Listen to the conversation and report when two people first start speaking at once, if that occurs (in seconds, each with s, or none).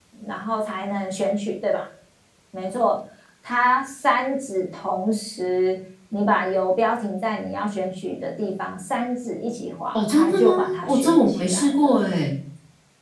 9.9 s